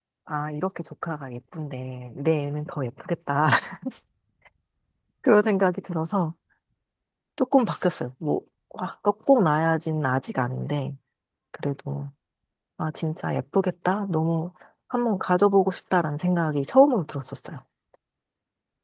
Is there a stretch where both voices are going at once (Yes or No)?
No